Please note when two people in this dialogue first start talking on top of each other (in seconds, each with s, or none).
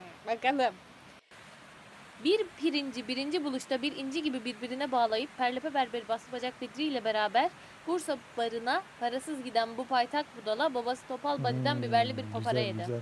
11.4 s